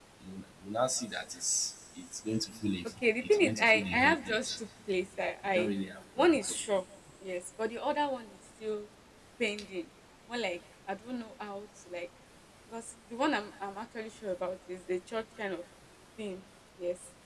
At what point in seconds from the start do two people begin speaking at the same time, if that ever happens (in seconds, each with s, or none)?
3.2 s